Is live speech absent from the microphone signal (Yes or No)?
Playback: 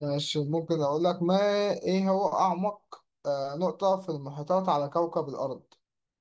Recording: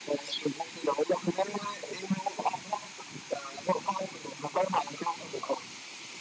Yes